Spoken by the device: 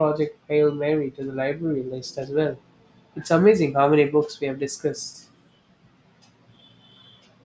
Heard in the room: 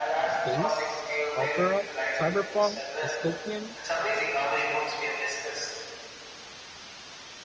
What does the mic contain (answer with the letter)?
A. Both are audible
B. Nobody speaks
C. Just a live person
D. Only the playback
A